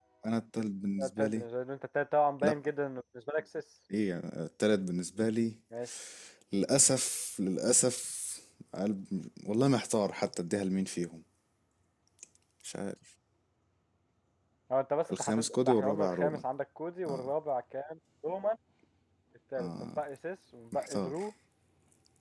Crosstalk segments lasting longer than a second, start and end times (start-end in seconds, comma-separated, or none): 15.1-16.4